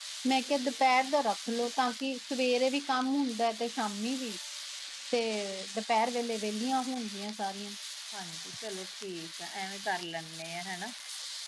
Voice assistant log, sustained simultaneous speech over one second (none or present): none